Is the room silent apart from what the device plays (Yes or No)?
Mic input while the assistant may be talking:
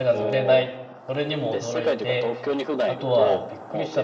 No